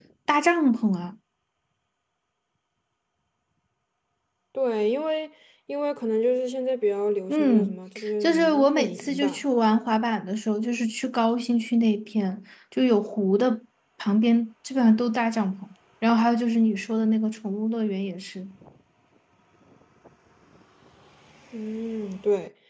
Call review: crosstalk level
present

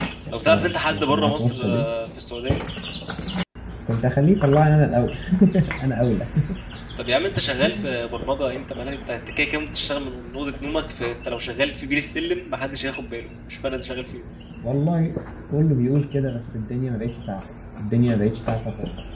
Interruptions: present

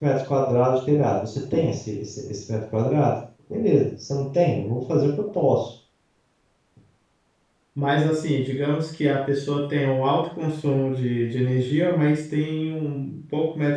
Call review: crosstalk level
none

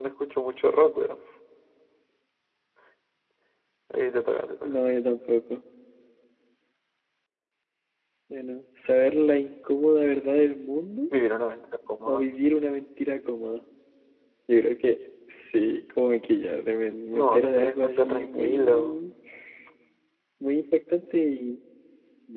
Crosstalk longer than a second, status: present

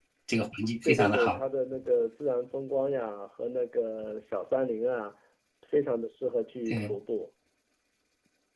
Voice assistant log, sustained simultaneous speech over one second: none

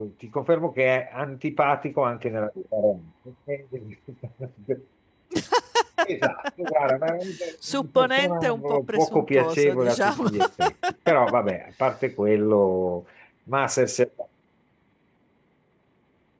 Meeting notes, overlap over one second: present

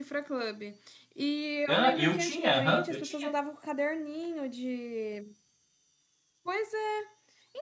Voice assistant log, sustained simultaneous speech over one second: present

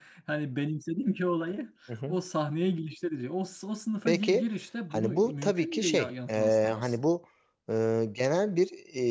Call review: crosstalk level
present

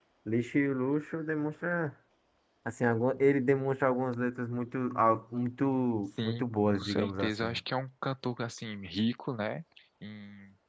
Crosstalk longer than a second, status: present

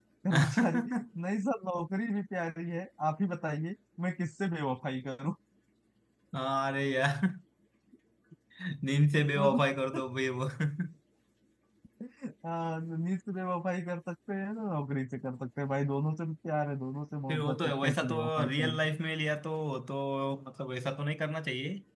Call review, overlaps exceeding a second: present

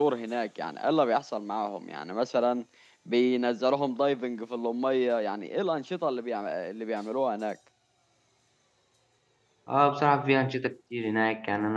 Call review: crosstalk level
none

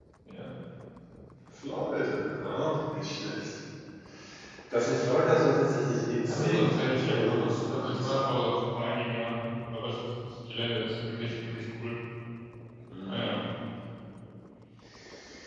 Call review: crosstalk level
present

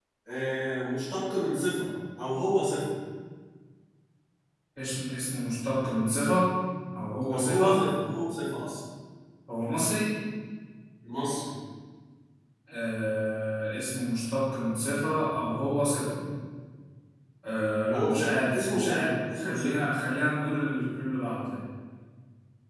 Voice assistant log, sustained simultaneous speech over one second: present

